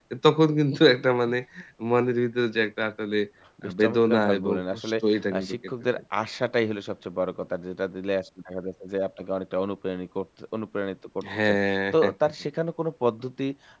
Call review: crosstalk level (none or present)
present